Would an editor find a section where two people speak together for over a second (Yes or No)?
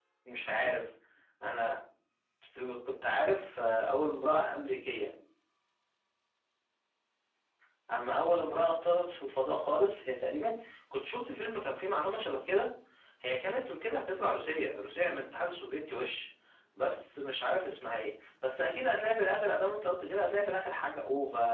No